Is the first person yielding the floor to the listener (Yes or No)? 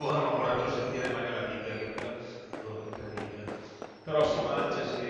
No